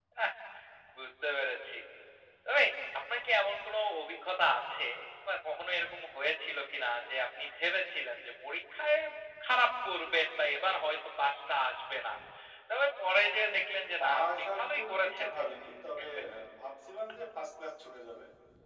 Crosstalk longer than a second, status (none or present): present